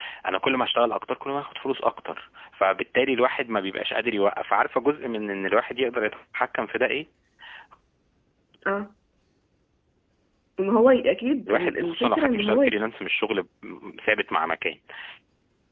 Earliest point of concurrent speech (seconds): 11 s

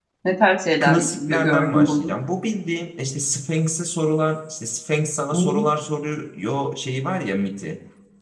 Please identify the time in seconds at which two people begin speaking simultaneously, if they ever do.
1 s

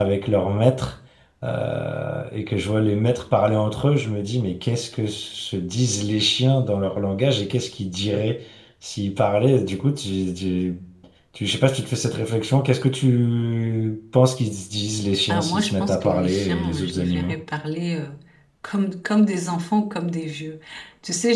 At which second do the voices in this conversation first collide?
15 s

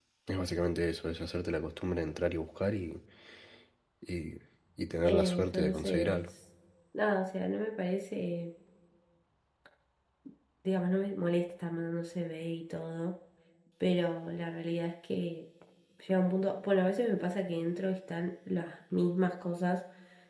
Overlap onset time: 5 s

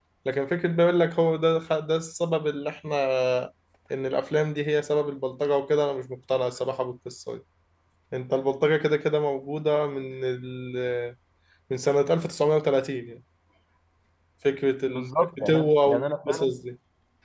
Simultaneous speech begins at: 15 s

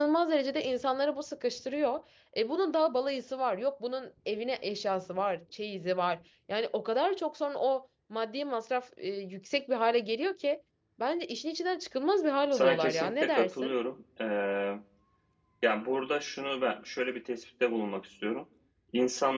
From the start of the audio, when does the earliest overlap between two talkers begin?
13 s

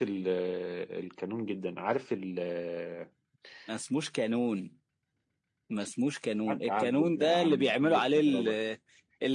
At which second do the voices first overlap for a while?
6 s

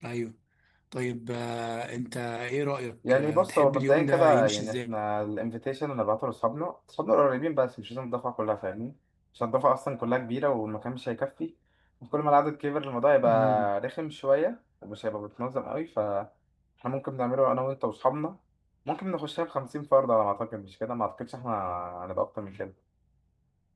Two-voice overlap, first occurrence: 3 s

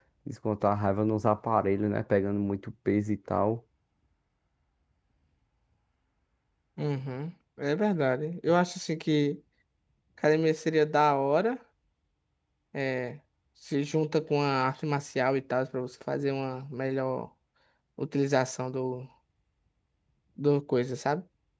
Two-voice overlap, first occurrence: none

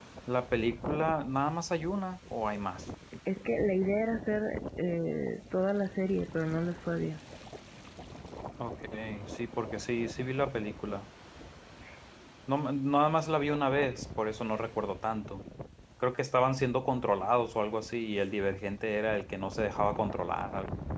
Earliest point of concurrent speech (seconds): none

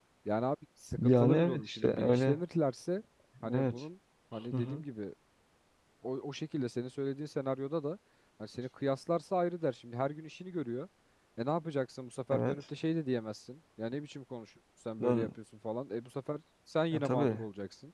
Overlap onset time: 1 s

